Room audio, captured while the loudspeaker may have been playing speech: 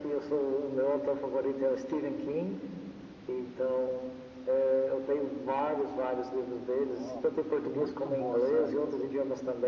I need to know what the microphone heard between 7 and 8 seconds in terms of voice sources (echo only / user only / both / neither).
both